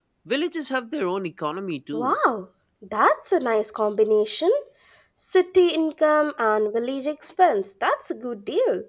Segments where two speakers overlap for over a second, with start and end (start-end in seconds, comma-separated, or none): none